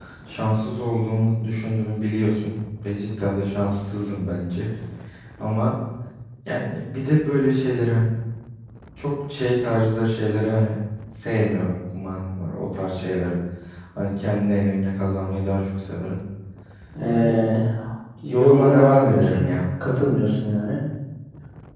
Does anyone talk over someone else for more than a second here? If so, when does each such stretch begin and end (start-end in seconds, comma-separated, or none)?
18.3-19.5